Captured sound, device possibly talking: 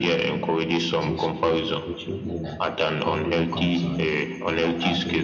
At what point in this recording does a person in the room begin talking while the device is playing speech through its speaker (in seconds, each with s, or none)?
1.0 s